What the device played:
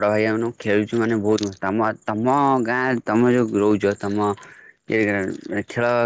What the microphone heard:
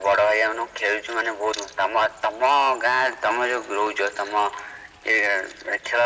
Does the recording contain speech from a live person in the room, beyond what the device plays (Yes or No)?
No